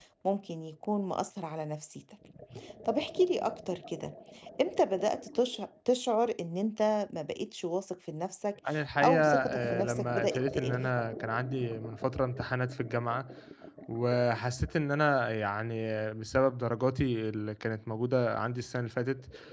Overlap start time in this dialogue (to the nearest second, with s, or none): 9 s